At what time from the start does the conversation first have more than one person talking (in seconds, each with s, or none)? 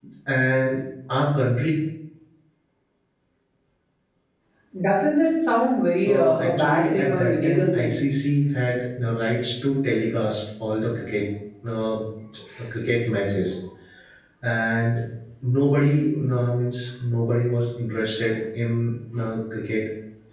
6.0 s